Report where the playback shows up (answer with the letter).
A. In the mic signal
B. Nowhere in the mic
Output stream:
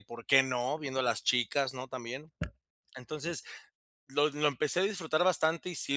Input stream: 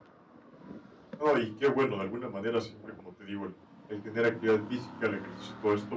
B